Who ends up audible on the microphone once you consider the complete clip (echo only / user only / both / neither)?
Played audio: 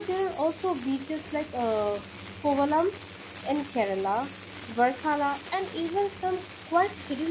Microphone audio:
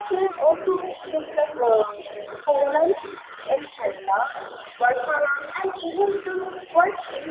echo only